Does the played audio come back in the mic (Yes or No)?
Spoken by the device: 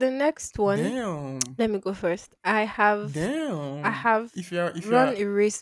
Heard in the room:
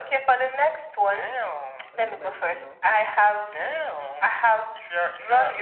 Yes